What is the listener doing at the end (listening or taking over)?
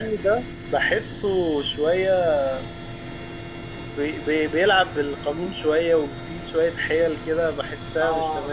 taking over